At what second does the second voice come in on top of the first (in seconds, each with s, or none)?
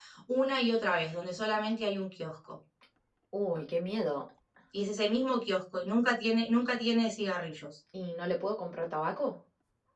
none